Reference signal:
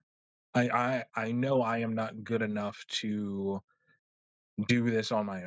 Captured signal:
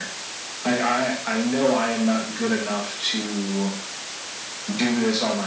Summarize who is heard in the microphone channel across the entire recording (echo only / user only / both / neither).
echo only